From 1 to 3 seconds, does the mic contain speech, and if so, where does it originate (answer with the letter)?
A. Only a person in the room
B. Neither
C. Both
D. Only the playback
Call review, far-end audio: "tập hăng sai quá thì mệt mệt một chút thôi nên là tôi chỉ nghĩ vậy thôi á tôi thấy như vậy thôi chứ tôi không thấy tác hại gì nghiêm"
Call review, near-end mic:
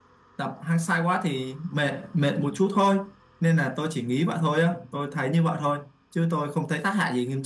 D